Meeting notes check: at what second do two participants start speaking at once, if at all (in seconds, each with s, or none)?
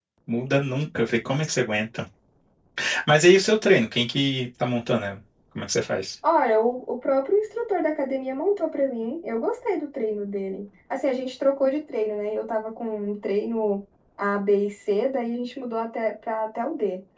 none